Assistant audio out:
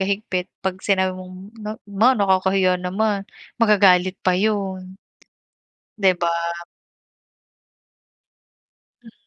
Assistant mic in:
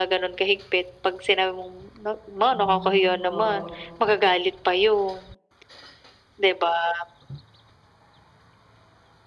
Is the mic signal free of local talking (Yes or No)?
No